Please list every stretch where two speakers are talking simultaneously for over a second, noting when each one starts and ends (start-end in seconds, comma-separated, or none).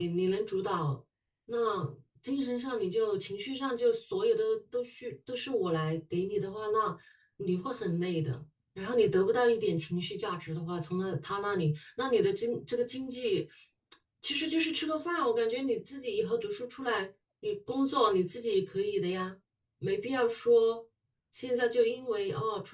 none